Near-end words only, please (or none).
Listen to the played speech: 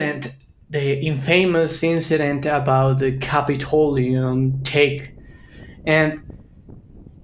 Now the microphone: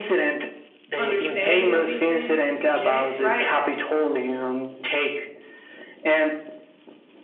understanding of these things, eugenics, right?